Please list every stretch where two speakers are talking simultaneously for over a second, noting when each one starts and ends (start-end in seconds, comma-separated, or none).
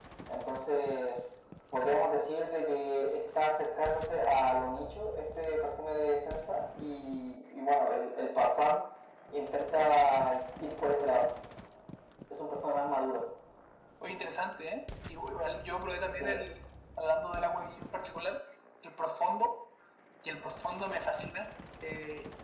none